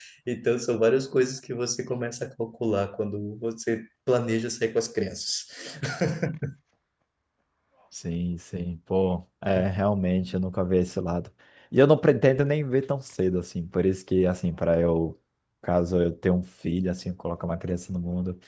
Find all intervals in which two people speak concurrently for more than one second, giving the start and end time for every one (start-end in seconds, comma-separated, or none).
none